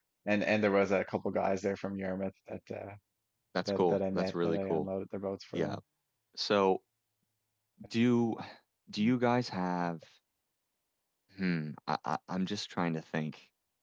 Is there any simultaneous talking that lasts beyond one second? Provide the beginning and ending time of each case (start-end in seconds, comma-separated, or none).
3.7-4.9